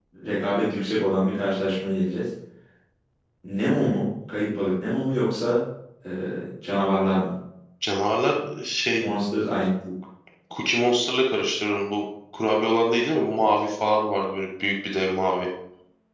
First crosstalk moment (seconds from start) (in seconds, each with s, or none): none